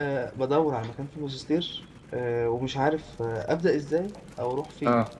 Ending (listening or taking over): listening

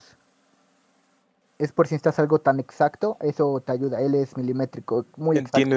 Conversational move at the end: taking over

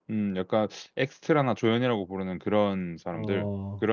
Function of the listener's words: taking over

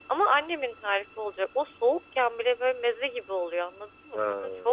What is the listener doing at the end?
listening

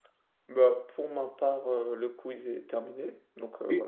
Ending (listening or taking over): taking over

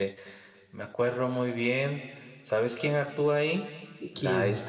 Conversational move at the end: listening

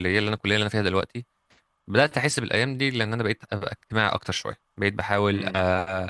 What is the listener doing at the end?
listening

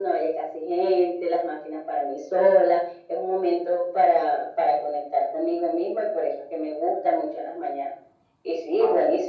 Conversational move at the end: listening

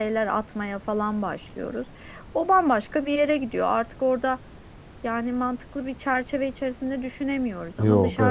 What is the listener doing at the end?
listening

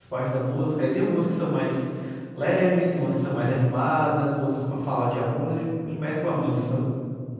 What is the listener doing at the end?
taking over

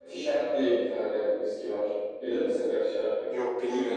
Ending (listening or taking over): listening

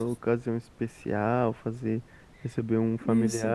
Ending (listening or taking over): listening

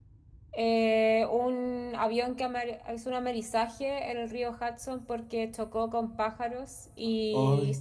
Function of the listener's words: listening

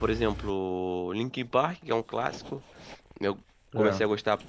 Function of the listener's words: listening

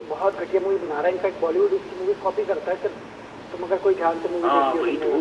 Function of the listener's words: taking over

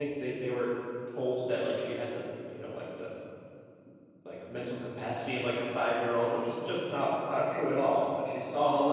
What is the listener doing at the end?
listening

